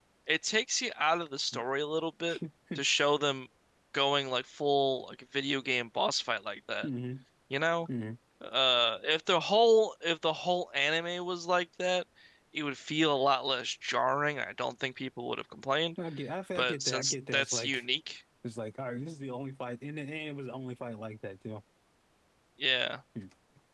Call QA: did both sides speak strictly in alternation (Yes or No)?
No